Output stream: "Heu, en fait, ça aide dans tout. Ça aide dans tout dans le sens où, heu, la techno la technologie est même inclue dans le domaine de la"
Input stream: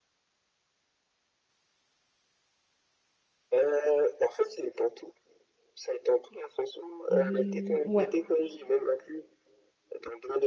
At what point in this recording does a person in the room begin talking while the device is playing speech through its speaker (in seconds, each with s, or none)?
7.1 s